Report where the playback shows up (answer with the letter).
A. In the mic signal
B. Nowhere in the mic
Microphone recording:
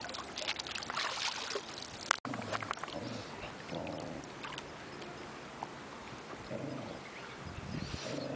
B